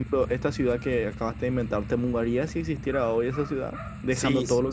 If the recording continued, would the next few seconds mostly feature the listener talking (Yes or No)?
Yes